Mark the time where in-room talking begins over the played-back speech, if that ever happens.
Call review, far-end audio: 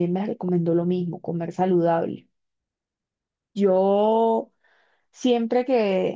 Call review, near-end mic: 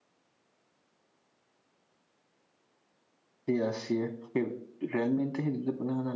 3.4 s

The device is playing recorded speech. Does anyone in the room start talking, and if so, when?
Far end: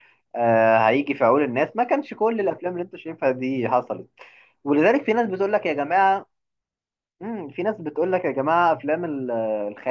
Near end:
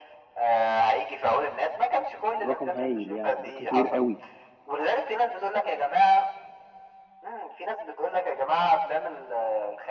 2.4 s

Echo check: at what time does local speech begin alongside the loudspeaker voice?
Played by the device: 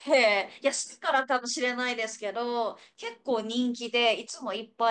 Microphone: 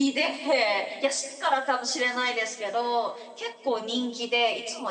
none

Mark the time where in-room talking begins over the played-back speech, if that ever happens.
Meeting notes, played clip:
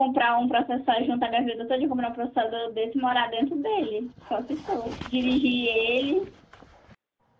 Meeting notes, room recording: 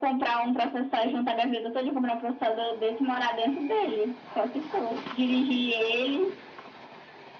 none

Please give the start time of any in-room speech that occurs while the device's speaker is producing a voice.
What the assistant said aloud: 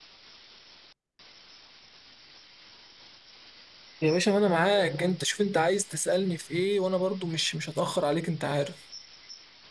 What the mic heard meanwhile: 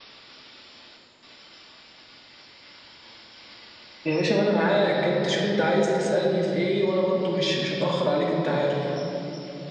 none

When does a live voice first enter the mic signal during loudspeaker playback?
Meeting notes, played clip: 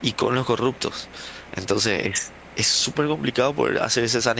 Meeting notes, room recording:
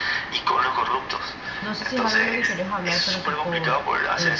1.6 s

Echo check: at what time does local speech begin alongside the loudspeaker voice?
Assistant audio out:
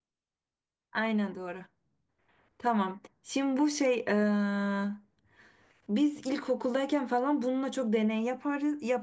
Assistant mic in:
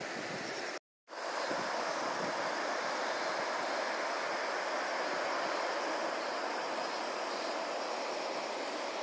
none

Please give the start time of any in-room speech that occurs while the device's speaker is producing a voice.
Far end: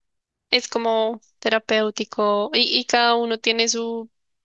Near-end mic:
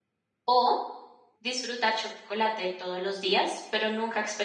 0.5 s

